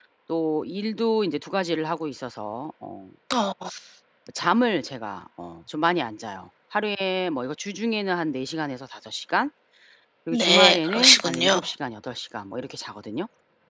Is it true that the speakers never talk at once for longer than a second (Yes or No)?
No